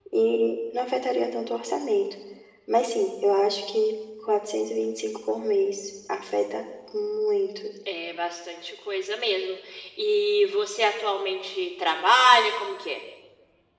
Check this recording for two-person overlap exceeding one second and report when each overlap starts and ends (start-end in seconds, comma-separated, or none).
none